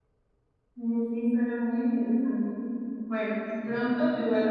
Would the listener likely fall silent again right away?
Yes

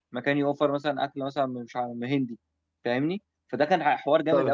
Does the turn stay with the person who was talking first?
No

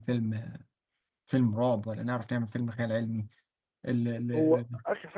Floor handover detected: Yes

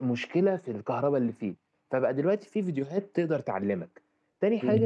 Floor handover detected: No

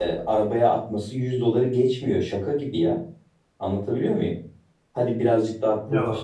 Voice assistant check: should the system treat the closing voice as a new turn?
No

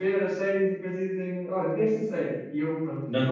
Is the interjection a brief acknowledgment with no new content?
No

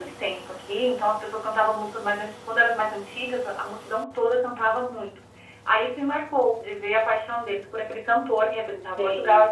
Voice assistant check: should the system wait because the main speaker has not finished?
Yes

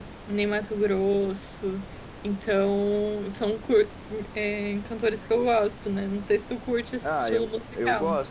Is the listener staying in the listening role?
No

